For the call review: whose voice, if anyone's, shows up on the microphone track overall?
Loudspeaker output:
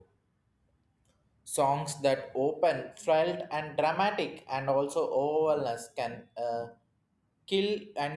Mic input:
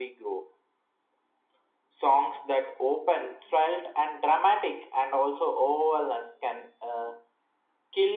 echo only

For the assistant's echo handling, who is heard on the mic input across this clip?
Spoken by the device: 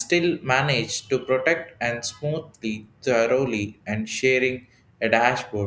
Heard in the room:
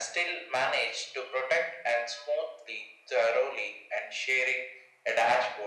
echo only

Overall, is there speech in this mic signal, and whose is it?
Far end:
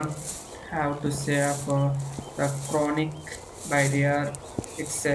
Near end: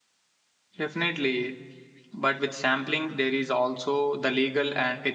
user only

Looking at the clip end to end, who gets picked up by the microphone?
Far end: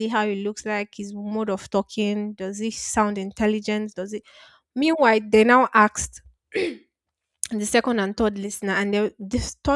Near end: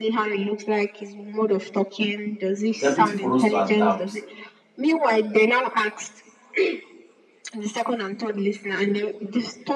both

